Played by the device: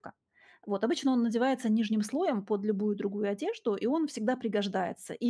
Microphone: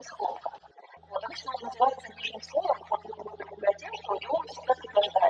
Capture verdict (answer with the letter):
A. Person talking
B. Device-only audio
B